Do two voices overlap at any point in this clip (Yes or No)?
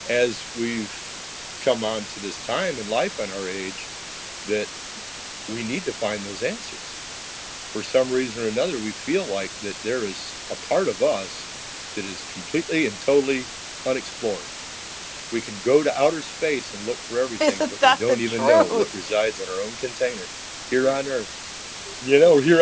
Yes